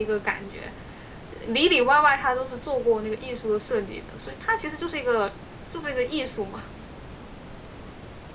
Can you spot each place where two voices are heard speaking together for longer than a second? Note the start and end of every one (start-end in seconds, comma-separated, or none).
none